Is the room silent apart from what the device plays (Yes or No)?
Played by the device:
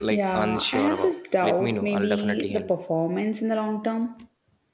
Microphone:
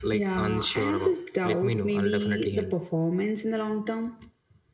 Yes